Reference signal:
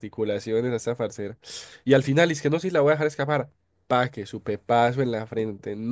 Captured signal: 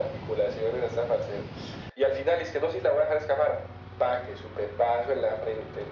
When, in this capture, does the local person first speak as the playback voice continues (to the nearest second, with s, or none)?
none